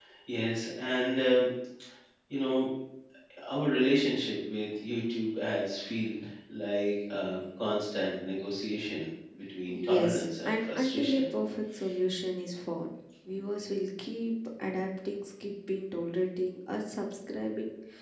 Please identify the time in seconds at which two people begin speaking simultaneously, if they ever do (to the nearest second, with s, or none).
10 s